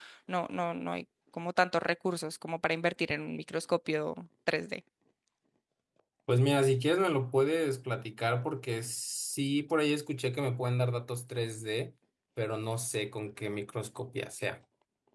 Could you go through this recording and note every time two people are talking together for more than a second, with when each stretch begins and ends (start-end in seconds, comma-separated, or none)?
none